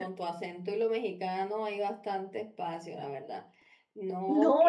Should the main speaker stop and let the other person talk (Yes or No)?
Yes